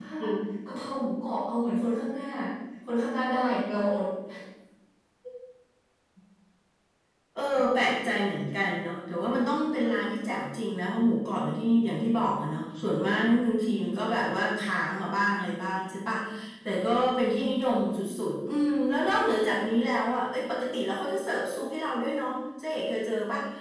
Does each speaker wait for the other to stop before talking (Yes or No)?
Yes